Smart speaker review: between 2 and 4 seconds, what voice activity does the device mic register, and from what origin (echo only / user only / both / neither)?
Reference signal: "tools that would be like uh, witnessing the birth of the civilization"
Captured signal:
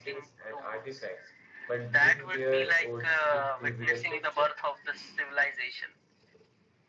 both